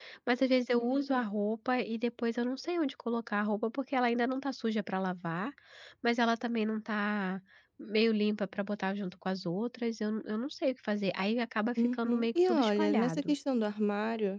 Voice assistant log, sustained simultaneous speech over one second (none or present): present